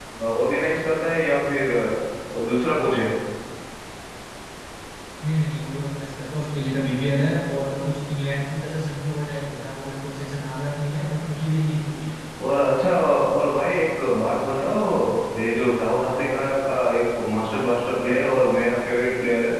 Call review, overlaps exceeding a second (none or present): none